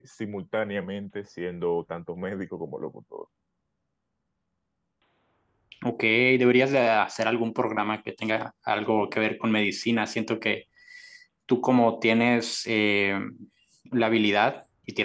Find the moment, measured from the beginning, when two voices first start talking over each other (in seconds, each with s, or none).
none